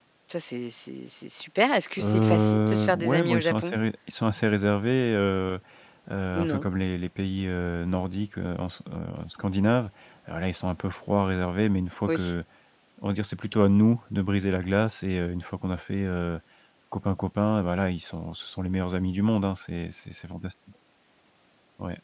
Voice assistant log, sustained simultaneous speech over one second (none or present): present